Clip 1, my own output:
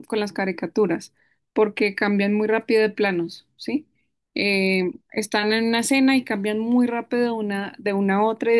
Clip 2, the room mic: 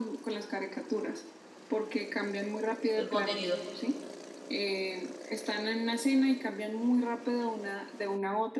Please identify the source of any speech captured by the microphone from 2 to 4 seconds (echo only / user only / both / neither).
both